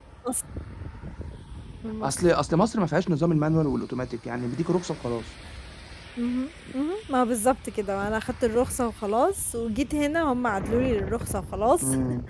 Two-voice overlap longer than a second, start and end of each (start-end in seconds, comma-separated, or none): none